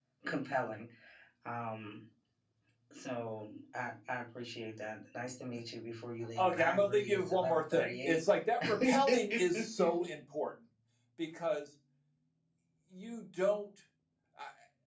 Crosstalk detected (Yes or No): Yes